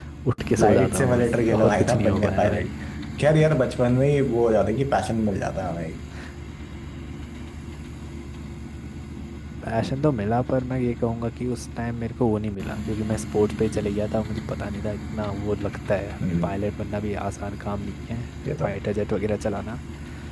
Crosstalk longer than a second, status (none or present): present